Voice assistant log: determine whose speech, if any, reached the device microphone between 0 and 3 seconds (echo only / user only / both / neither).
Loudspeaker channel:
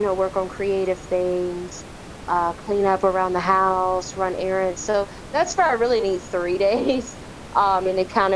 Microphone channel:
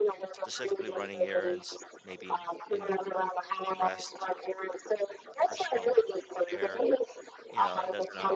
both